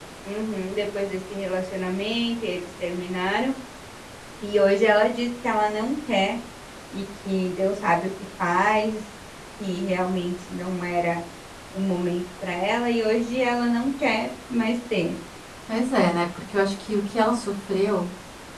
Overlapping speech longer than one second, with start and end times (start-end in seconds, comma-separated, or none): none